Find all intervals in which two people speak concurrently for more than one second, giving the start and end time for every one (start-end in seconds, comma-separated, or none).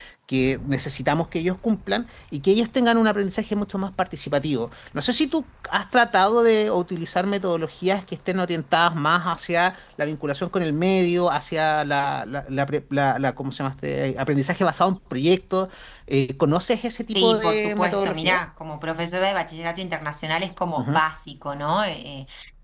17.1-18.4